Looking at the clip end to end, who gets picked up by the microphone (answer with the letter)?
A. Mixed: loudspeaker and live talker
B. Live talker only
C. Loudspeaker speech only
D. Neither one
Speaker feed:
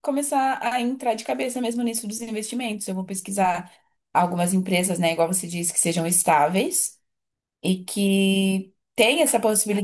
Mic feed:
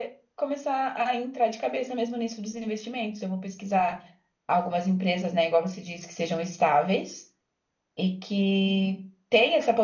C